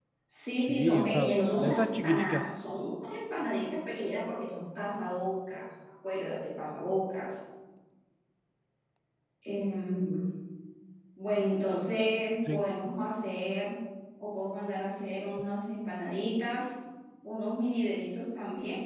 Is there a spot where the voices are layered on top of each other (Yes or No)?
Yes